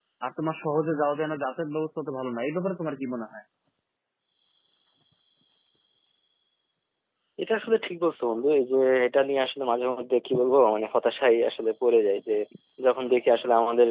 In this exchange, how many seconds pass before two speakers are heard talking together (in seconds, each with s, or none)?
none